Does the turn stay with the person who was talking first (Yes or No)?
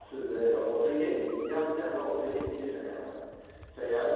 Yes